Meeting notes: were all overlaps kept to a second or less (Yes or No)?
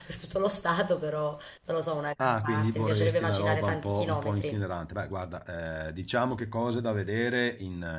No